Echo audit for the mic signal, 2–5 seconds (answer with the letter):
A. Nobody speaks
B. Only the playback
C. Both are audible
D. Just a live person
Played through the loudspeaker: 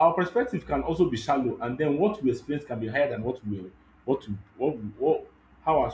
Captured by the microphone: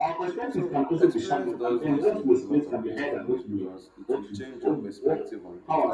C